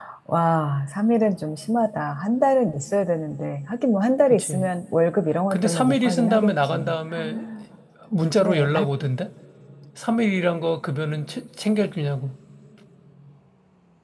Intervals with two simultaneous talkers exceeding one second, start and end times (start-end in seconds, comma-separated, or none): 5.5-6.8